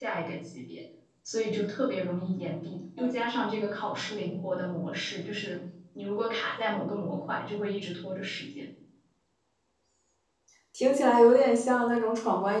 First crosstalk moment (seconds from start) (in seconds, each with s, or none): none